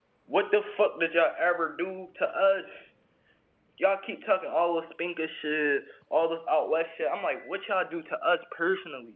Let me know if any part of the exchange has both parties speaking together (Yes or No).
No